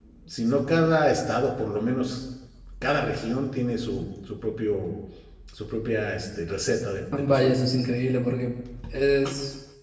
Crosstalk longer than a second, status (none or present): none